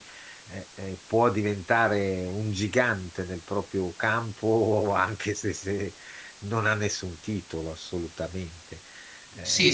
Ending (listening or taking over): taking over